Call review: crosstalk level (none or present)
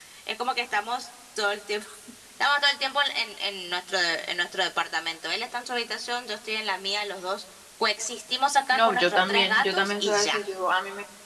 present